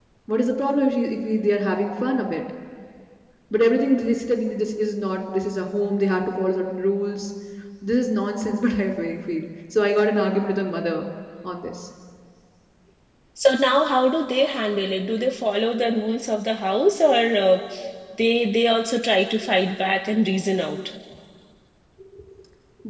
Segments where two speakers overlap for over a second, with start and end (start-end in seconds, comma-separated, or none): none